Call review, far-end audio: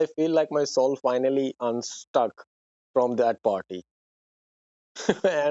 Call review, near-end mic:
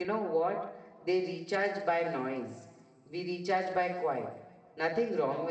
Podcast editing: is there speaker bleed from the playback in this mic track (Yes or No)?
No